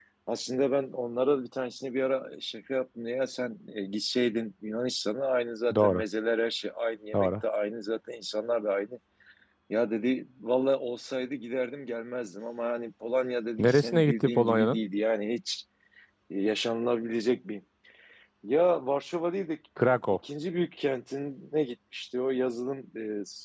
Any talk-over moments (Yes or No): Yes